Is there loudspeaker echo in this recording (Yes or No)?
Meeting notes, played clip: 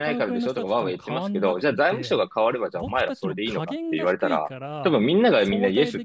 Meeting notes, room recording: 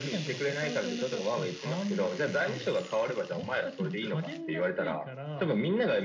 Yes